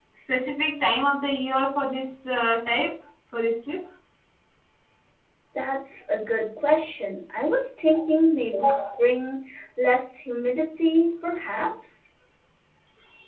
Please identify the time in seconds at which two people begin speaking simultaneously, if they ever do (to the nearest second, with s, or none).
none